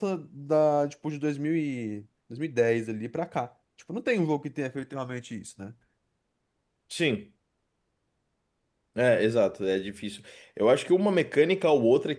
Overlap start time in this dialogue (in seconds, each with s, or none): none